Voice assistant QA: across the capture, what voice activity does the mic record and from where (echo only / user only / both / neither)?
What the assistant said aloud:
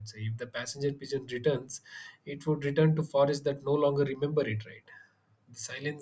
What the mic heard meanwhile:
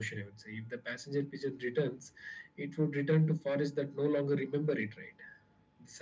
echo only